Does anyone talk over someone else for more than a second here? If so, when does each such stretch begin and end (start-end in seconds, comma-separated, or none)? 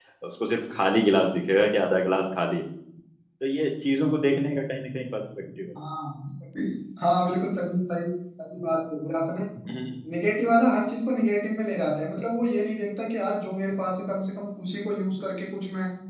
none